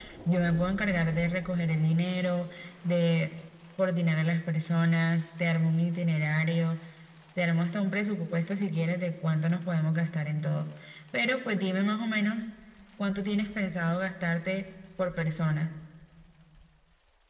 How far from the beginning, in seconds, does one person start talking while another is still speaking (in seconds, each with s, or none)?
none